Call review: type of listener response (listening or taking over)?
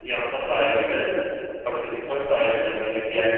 taking over